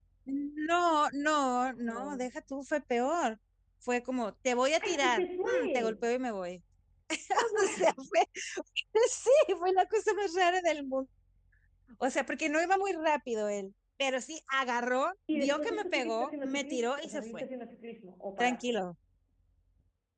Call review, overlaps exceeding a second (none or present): present